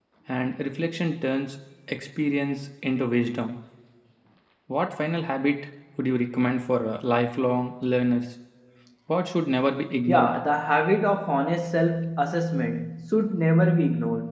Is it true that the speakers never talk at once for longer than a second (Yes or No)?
Yes